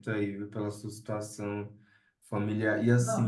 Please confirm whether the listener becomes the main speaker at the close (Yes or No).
No